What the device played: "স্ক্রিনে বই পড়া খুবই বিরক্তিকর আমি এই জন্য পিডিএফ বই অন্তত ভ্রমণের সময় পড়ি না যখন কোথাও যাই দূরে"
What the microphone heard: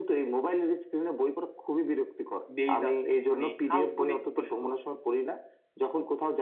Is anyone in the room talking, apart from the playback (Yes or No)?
Yes